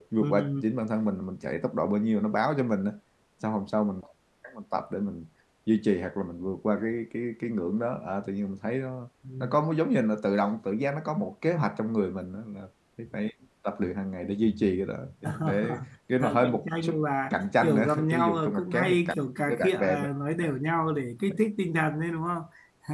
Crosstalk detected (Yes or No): Yes